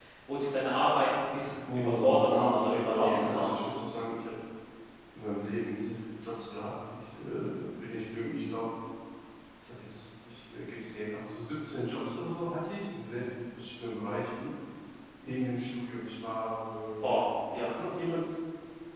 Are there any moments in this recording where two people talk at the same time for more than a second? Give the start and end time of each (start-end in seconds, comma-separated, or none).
1.7-3.4